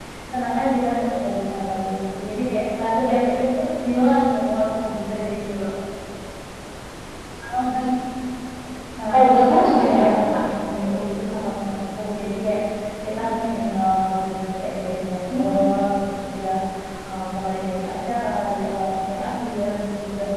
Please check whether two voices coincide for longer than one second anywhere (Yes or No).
Yes